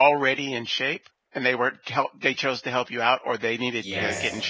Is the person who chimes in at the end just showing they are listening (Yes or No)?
No